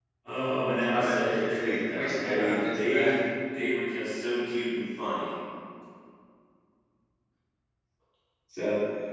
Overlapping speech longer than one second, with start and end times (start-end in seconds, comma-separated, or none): 0.9-3.1